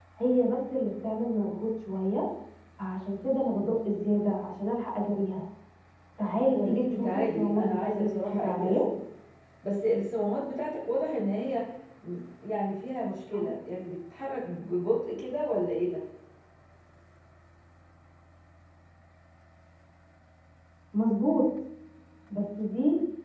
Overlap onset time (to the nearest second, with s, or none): 7 s